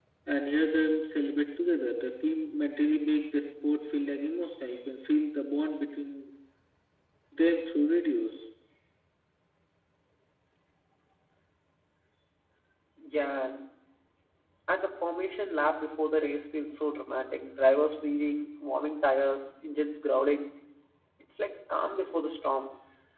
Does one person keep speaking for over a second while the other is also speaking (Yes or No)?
No